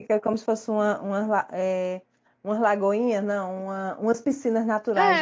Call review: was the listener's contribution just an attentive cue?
No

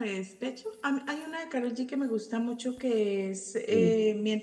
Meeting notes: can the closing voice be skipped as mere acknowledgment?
Yes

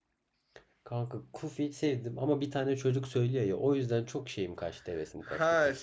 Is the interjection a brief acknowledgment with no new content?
No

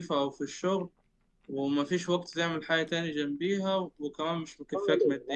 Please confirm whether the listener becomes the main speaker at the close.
Yes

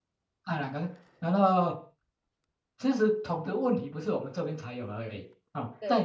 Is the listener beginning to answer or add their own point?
No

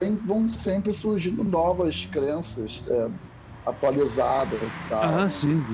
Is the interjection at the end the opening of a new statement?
Yes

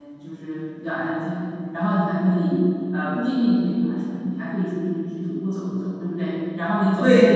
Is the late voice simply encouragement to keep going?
Yes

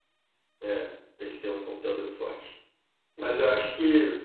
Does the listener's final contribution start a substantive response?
No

